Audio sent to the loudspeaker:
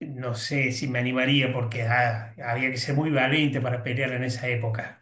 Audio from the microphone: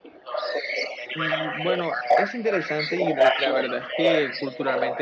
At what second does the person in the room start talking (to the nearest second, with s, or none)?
1 s